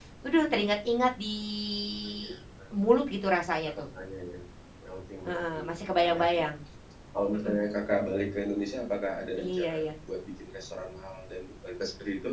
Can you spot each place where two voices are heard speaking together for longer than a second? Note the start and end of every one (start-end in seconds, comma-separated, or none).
5.2-6.5